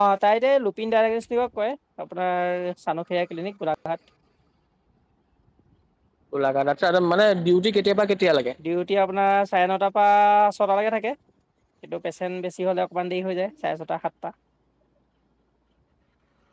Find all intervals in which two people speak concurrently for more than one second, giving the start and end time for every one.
none

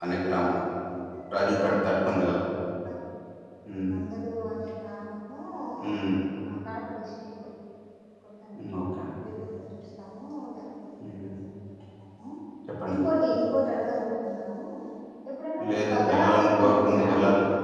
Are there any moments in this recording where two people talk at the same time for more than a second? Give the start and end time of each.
15.7-17.1

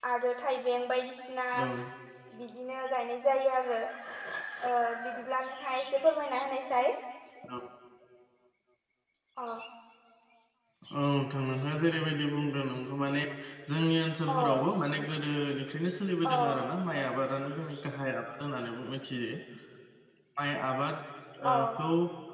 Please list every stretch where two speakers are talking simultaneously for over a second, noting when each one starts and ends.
none

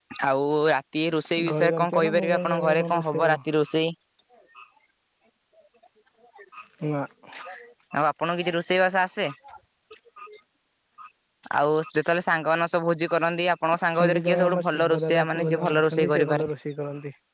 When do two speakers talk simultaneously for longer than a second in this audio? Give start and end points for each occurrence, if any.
1.5-3.4, 13.9-16.5

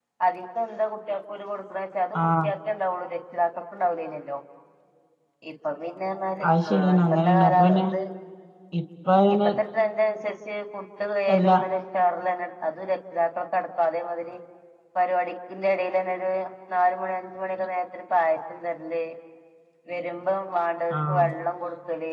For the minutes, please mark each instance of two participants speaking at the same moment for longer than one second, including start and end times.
6.5-7.8

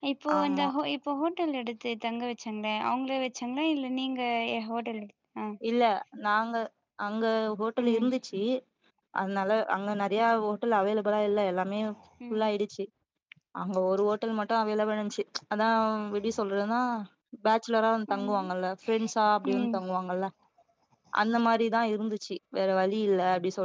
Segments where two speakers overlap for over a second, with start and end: none

